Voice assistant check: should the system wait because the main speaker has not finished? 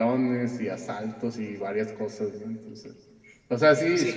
Yes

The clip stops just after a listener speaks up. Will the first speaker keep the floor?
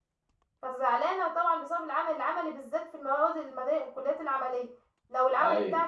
Yes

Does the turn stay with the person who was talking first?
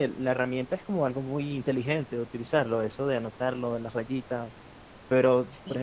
Yes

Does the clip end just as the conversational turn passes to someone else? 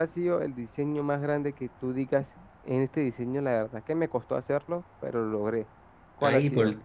Yes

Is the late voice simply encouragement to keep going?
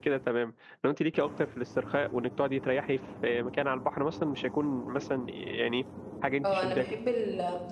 No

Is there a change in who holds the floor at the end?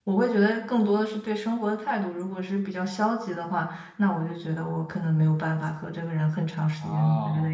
No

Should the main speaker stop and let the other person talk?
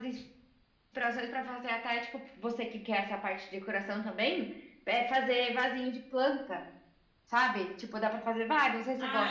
Yes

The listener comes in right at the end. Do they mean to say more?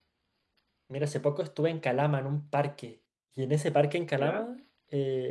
No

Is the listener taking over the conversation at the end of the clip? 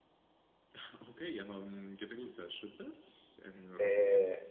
Yes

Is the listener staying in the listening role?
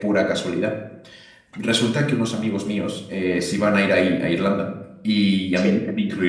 Yes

